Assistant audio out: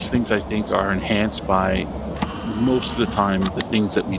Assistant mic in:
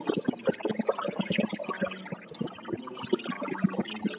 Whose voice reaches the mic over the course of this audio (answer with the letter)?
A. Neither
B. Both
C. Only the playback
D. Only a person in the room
C